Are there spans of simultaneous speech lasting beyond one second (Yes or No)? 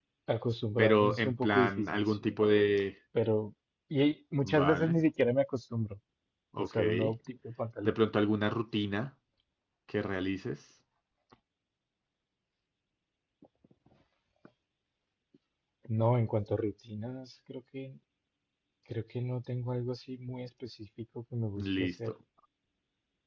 Yes